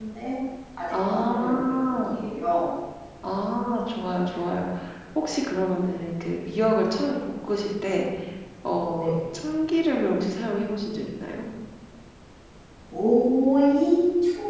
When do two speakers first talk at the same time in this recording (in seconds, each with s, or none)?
0.9 s